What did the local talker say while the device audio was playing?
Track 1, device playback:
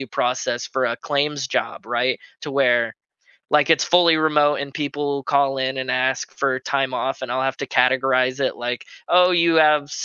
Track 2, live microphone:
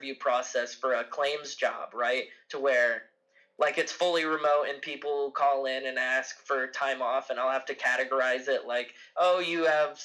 none

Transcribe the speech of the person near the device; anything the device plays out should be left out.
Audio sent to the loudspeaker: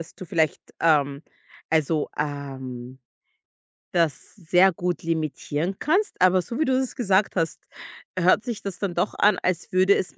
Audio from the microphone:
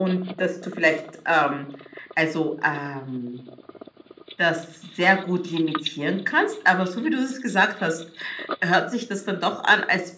none

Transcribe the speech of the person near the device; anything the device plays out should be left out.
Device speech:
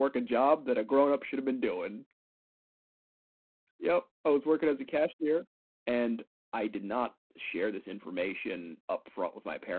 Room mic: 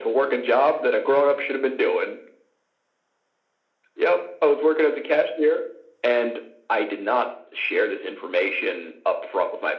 none

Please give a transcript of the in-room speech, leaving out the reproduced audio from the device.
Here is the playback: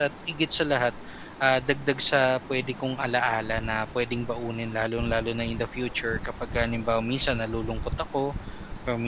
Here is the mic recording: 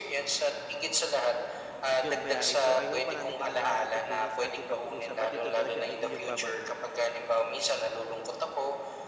yung biyahe. So, I hope marami ka na natutunan sa ating pag-uusap at ito talaga ay iyong babaunin.

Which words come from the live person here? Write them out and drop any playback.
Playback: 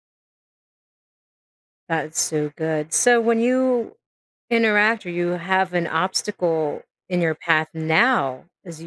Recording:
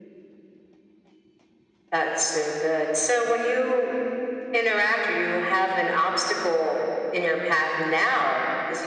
none

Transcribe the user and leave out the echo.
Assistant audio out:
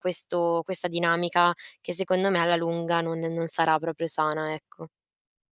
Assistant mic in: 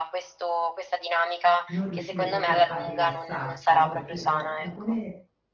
non riuscire proprio a rilassarsi, no, perché, ehm, da come

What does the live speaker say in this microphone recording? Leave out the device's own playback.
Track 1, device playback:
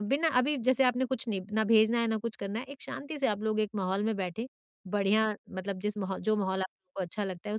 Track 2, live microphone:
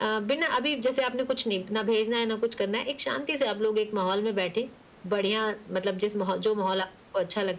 none

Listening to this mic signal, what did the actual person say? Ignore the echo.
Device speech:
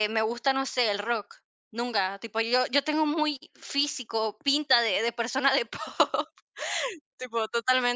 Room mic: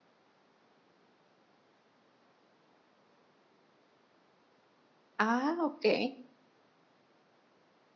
Ah, okey.

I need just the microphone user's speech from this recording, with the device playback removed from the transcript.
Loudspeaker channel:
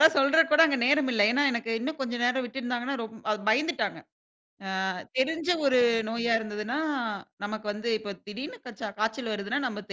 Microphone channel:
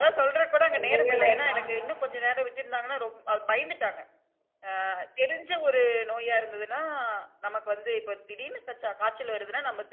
சொல்லவே வேண்டாம்.

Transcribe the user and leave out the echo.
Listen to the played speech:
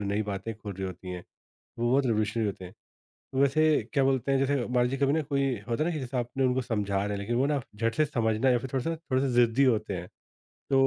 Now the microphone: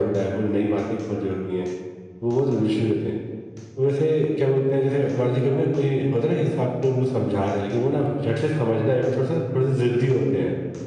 none

